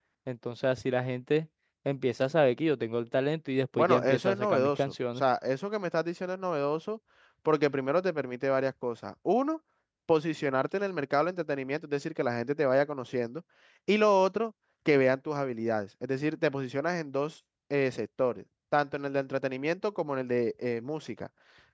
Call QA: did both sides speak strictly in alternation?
No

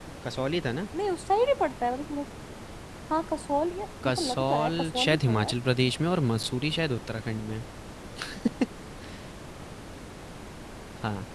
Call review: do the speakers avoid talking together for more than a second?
No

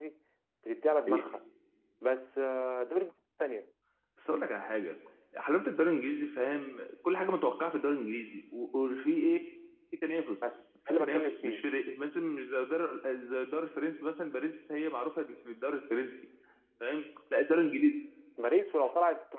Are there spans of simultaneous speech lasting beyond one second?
Yes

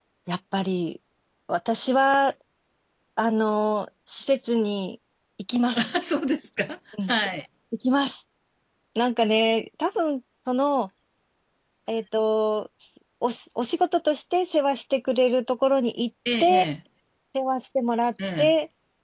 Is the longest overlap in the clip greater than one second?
No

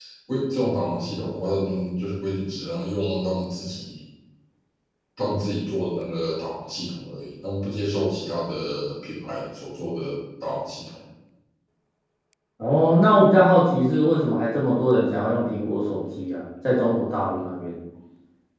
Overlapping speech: No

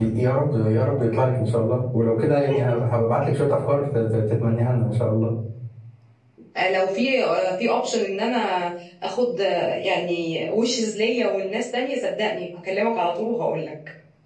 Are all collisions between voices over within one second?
Yes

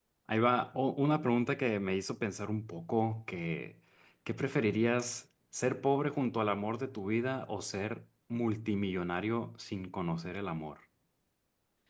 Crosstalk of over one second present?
No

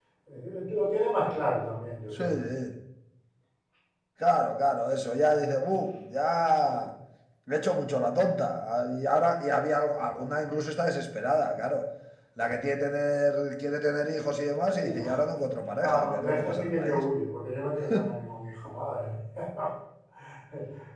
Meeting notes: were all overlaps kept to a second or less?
No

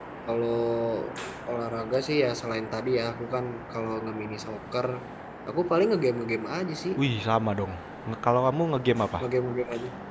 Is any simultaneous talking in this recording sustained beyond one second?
No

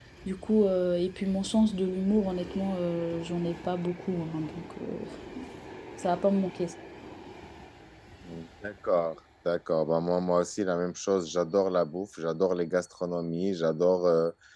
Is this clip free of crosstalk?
Yes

